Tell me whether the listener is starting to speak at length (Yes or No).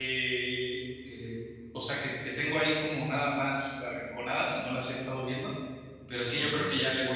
No